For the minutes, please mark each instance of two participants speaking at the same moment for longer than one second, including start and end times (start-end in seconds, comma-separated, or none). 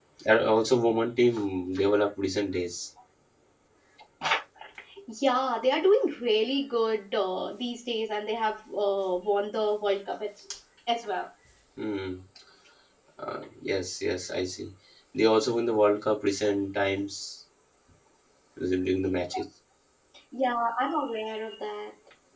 none